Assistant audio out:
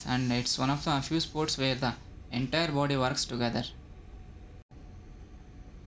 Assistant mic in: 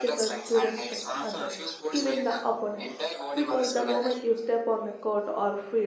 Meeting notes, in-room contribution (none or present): present